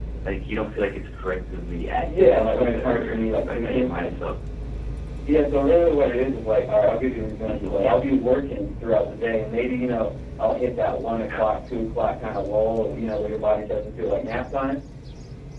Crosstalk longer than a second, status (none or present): present